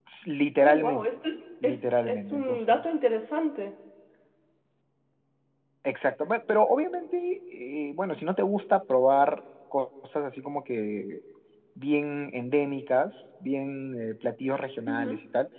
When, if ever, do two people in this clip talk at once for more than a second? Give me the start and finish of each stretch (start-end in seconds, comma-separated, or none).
1.6-2.9